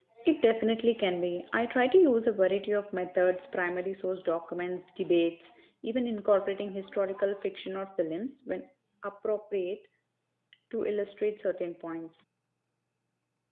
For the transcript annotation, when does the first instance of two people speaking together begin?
none

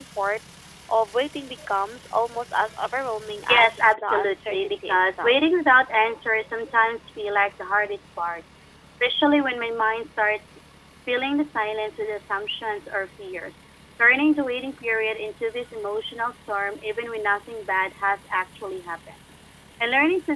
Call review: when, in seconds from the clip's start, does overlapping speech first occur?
3 s

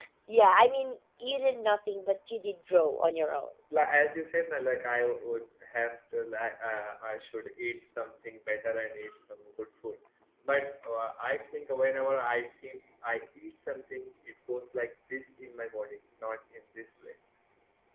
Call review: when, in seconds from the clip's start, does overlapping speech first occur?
none

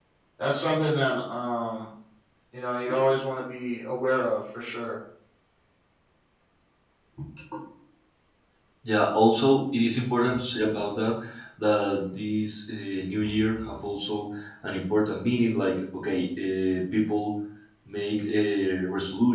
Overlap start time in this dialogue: none

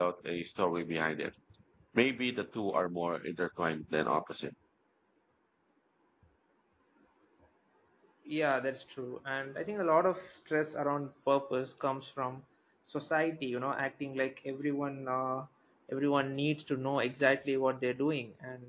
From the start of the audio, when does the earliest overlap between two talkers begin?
none

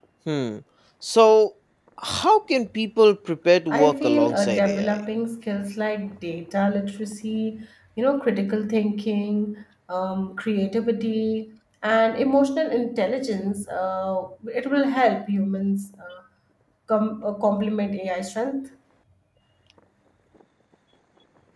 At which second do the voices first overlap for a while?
4 s

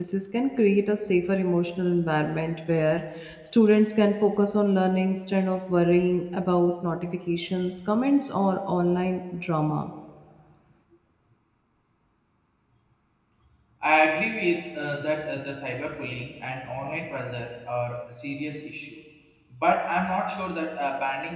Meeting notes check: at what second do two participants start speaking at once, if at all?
none

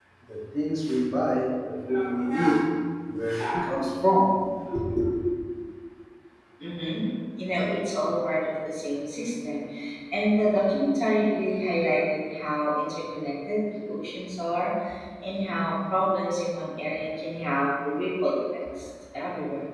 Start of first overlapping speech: none

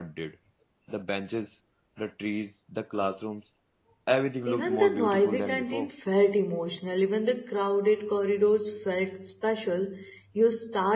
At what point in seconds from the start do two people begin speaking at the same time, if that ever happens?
4 s

